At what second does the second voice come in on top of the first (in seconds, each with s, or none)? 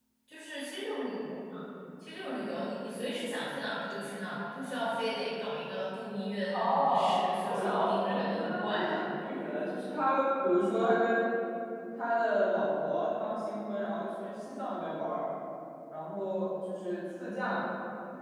6.5 s